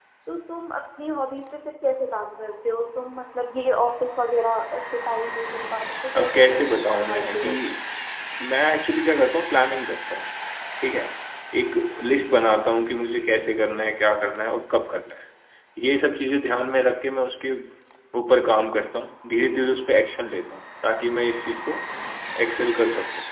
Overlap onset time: 6.2 s

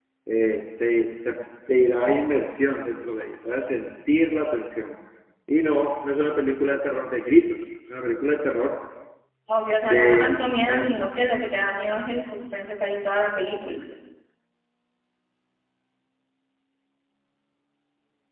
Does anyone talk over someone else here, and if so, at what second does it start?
9.8 s

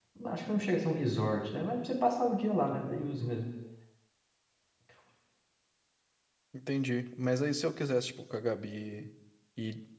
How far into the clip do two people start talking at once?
none

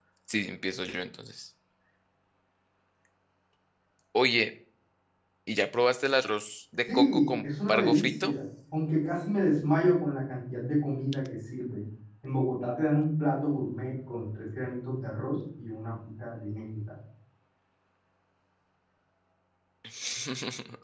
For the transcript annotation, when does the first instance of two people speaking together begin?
6.9 s

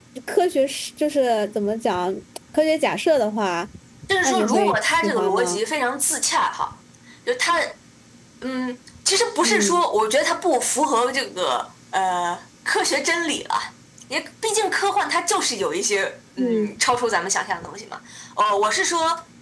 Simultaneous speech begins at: 4.2 s

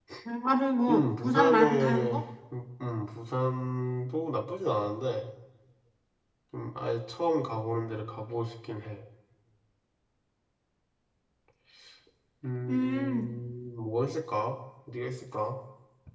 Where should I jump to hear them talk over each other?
0.9 s

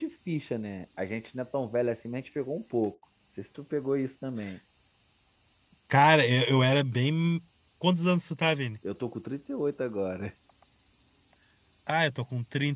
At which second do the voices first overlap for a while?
none

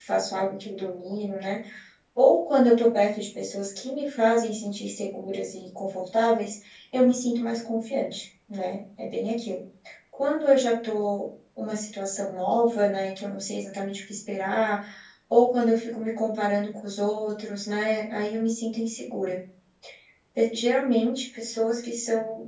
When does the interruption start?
none

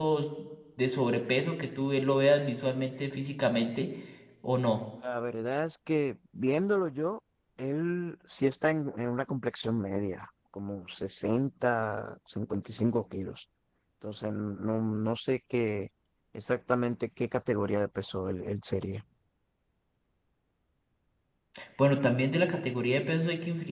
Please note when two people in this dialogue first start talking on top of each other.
none

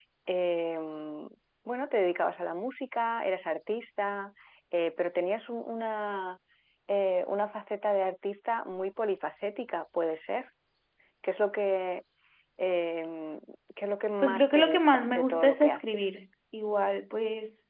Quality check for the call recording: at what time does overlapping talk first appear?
14.2 s

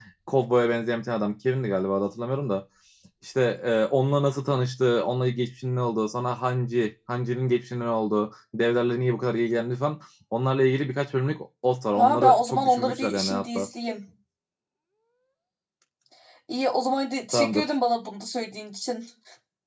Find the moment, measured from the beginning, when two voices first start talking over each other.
11.9 s

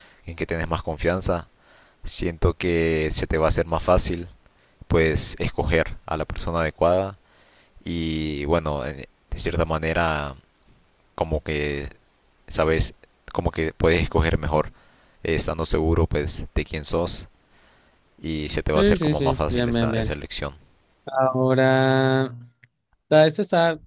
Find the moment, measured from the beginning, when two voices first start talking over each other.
18.8 s

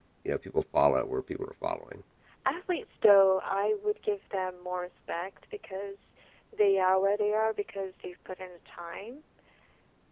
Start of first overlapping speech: none

